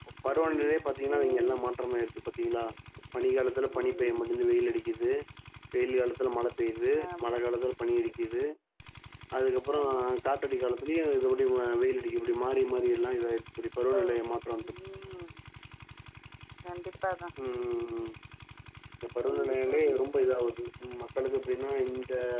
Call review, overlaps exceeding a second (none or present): none